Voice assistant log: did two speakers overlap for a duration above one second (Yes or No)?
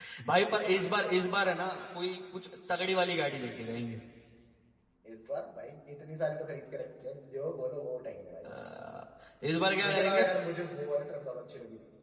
No